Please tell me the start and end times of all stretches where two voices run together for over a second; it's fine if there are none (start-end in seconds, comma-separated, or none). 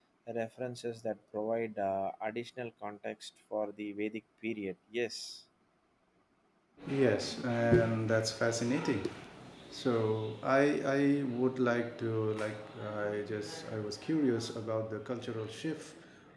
none